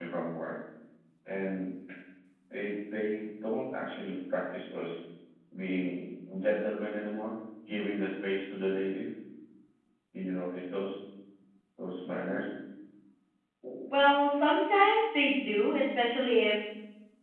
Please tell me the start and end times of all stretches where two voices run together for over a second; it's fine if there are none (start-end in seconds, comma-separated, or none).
none